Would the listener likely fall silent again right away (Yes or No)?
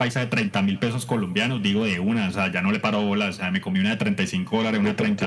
No